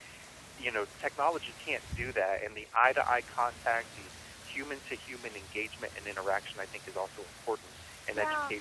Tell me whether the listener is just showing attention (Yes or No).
Yes